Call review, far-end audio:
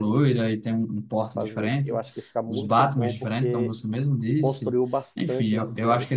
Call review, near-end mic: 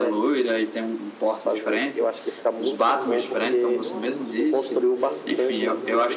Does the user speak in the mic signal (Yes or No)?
Yes